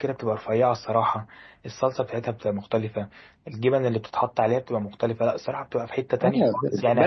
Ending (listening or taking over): taking over